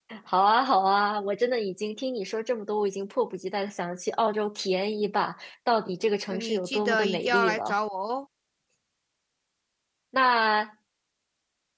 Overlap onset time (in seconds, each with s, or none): 6.3 s